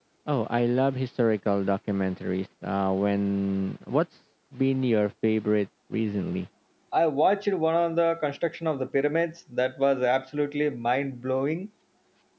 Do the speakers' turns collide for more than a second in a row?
No

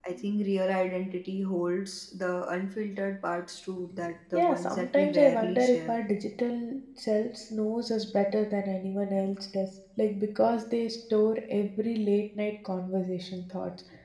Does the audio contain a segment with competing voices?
Yes, from 4.3 s

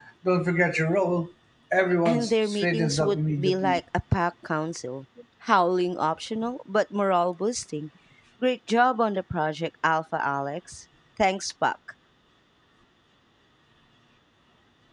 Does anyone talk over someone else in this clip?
Yes, from 2.0 s

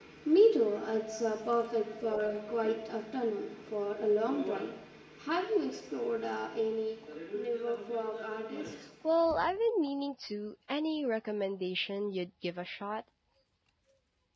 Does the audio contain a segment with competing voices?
No

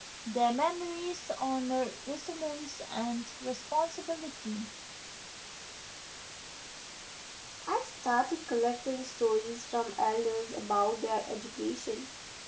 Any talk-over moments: No

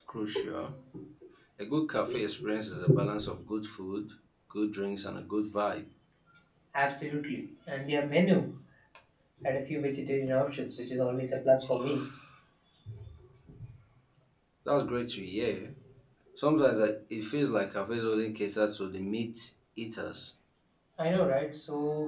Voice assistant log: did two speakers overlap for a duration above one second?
No

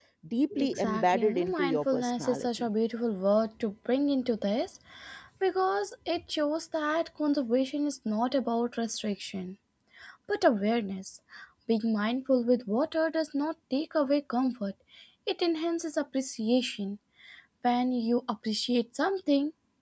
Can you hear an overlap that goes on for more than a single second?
Yes, from 0.6 s

